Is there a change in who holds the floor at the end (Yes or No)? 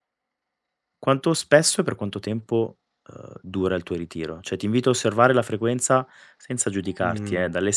No